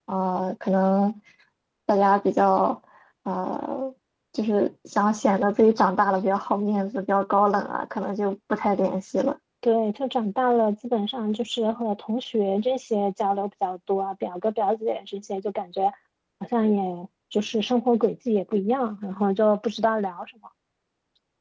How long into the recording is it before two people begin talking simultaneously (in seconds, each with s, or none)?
none